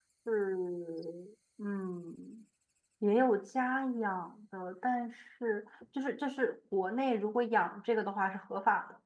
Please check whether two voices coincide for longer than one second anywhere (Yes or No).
No